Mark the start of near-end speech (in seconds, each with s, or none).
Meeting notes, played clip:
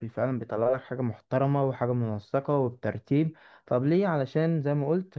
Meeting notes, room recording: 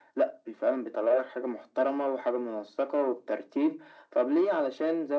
none